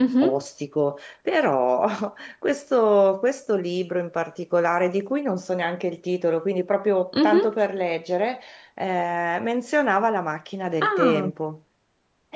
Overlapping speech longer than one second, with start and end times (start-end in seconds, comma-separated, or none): none